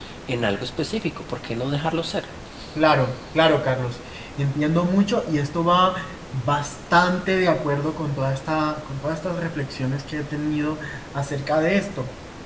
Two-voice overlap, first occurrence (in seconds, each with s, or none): none